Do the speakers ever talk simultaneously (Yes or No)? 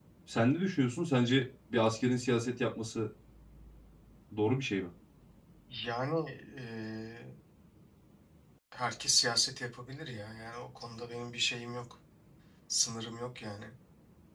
No